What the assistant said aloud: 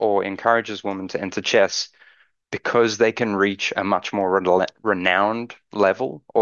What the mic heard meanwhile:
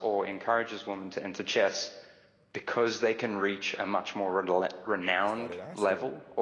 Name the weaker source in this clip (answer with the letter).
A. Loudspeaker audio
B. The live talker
B